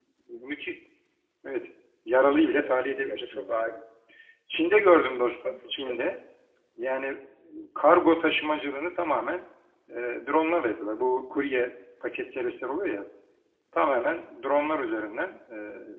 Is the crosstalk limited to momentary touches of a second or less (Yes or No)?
No